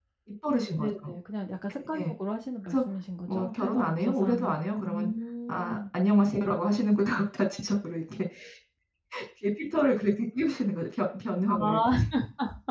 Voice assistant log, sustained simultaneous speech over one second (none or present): present